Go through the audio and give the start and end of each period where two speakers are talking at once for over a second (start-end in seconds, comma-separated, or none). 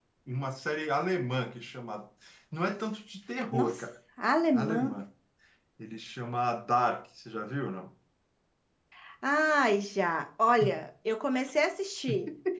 none